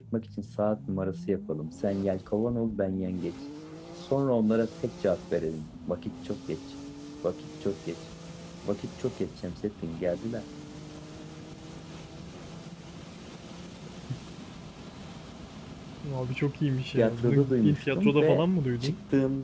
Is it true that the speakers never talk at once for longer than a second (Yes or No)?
No